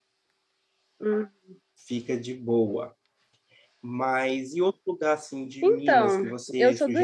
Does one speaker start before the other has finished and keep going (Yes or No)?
Yes